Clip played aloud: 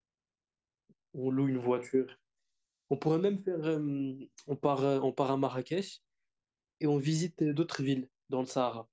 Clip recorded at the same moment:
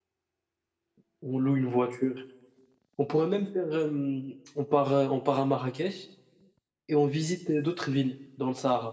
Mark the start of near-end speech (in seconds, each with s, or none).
none